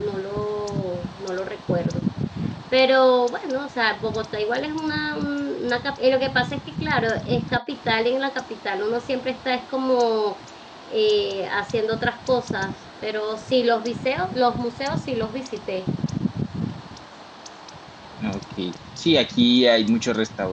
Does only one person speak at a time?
Yes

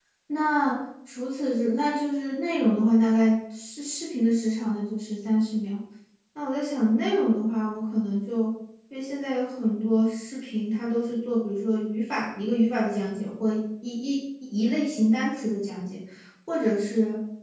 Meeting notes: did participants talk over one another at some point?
No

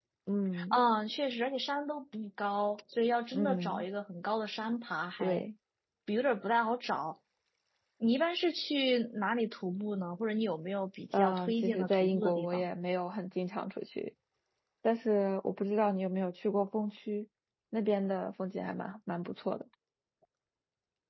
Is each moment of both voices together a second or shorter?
No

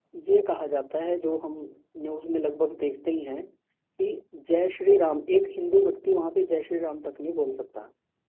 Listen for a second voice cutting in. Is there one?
No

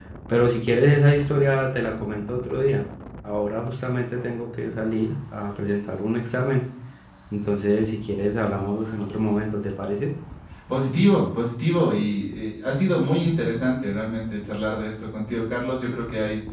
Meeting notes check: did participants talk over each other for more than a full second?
No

